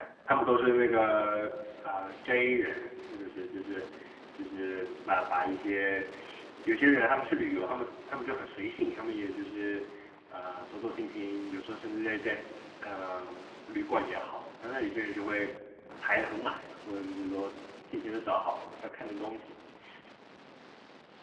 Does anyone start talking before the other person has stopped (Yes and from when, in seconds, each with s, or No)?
No